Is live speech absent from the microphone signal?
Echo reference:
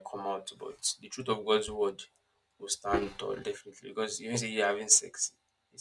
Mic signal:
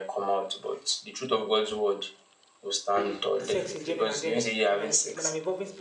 No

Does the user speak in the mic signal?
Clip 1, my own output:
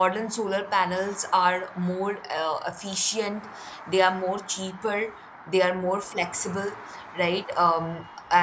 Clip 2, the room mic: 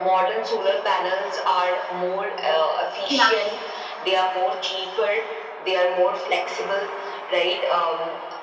Yes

